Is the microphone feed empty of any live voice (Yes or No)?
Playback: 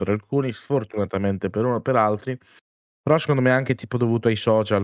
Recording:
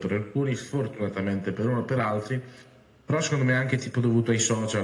Yes